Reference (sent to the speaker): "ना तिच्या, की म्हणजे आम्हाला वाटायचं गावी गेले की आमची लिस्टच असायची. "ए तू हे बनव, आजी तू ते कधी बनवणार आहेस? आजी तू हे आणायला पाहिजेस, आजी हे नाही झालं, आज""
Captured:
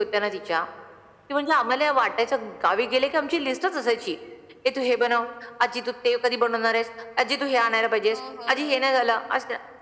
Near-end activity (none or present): present